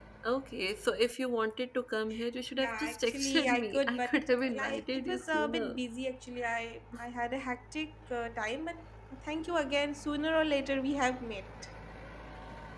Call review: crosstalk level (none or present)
present